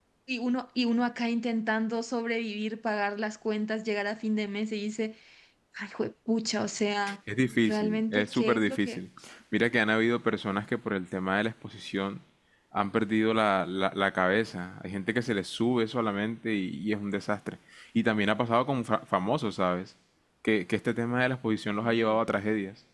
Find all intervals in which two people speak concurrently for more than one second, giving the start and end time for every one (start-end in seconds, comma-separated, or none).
7.7-9.0